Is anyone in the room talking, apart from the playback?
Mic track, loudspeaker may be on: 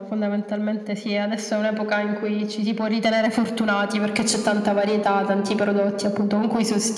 No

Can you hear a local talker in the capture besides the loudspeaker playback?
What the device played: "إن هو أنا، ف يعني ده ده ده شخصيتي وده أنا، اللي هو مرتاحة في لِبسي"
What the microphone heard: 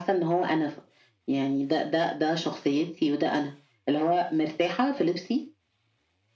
No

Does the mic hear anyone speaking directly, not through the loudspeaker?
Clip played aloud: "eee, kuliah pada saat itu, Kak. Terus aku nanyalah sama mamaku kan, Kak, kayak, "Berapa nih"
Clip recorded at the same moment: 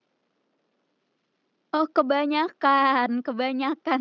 Yes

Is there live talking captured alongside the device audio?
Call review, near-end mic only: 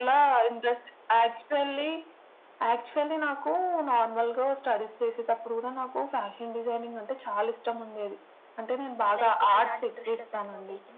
Yes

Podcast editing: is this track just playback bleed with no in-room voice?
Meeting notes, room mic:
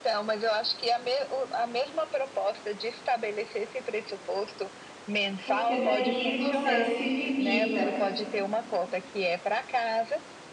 No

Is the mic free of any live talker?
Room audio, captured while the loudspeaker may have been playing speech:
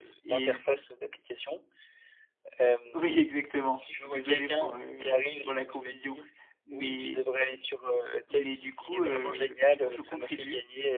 No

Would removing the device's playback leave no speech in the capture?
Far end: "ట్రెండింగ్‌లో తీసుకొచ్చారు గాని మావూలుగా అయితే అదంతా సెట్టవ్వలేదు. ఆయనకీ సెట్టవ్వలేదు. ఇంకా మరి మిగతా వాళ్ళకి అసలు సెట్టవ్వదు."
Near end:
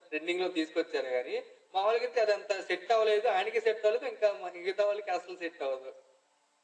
Yes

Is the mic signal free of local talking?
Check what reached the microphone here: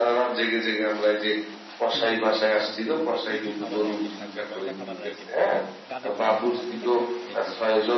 No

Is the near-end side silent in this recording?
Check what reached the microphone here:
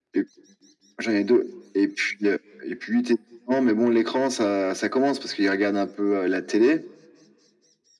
Yes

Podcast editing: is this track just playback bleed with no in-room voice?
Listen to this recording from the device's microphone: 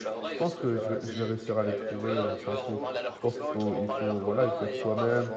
No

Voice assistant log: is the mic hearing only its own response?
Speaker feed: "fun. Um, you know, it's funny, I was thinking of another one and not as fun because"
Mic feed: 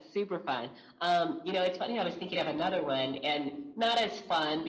Yes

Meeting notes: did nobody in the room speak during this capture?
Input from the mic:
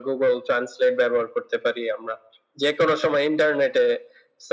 Yes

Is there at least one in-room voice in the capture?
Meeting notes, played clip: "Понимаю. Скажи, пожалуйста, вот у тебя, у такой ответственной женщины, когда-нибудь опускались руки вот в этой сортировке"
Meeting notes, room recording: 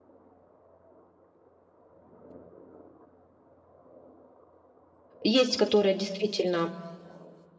Yes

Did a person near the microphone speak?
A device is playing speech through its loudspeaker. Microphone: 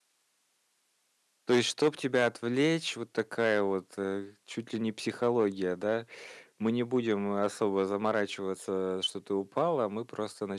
Yes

